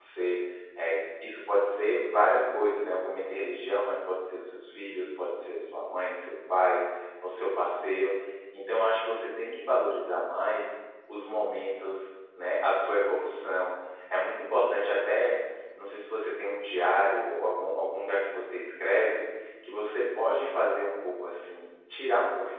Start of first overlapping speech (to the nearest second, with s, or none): none